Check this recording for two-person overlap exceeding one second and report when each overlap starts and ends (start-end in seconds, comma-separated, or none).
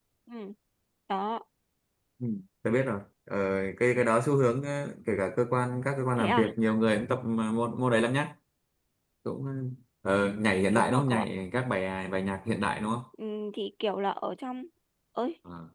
none